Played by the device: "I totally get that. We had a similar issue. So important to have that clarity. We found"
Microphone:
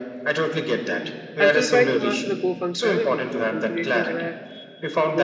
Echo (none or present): present